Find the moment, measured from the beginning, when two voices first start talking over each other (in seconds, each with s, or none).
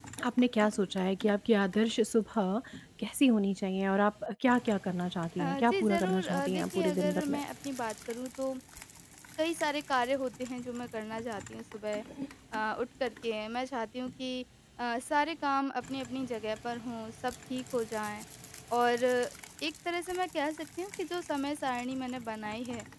5.4 s